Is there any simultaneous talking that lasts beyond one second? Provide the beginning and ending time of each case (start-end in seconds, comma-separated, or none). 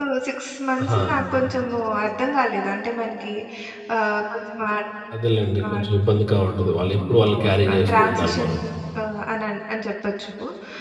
7.2-8.5